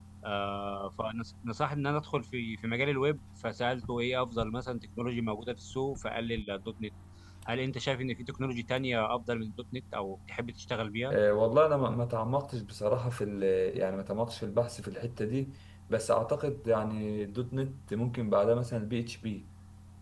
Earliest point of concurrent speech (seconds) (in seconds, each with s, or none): none